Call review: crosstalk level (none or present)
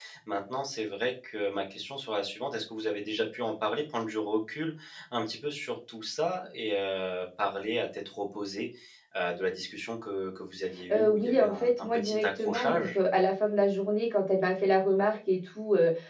present